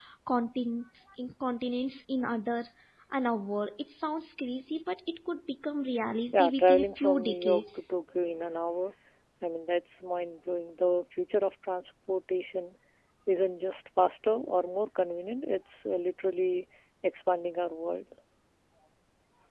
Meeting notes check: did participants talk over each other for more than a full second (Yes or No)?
Yes